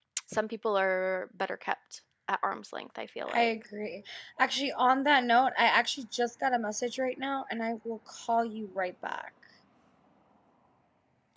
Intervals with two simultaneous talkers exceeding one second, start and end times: none

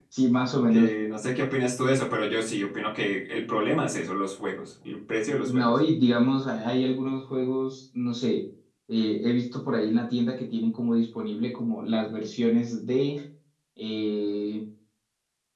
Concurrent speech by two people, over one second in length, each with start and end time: none

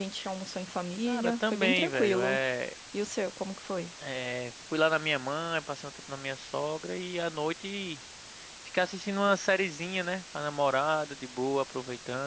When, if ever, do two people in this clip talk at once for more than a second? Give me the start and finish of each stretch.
1.1-2.4

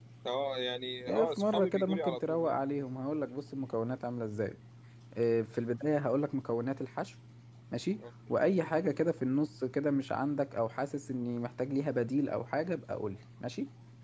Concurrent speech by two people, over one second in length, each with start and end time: 1.1-2.6

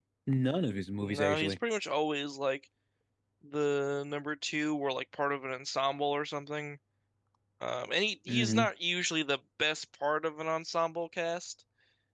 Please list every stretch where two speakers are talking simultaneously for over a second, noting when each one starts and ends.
none

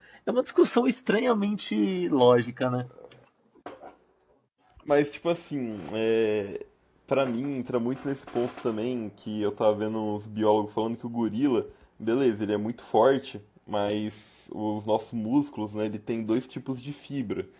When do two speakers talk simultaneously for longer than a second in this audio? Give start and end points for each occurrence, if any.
none

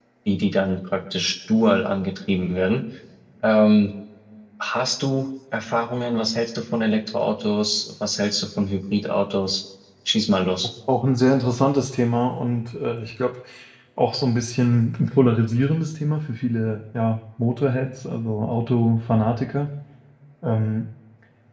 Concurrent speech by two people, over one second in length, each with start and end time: none

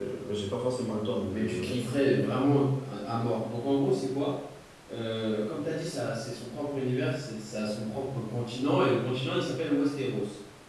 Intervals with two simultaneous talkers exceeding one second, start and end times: none

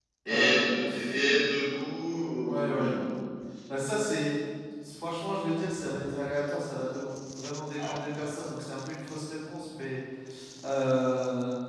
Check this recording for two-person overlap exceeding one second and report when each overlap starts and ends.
none

